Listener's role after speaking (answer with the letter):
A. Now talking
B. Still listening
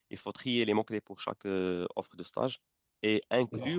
B